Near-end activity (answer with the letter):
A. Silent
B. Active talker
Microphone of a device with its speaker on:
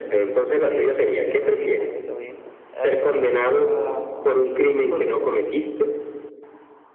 A